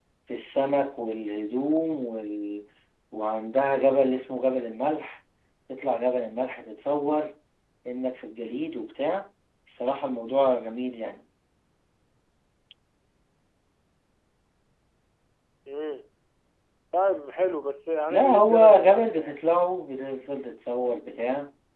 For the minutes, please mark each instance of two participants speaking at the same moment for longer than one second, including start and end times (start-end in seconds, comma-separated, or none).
18.1-19.4